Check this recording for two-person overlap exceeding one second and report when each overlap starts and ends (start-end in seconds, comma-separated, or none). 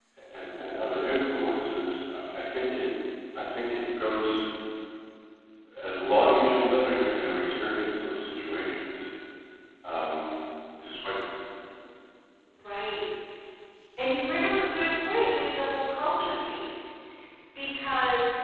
none